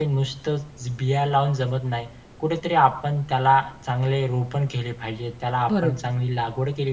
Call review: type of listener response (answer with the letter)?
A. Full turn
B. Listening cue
B